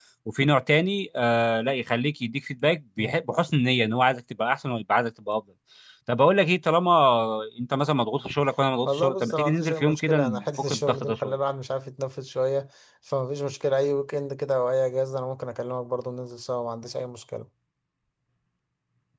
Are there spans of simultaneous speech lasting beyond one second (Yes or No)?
Yes